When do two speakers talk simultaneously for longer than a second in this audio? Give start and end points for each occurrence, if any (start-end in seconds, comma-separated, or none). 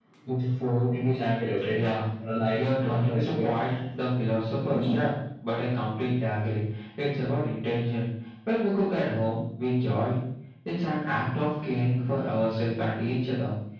2.5-3.7